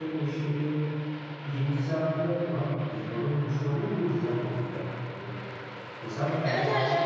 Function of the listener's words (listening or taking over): taking over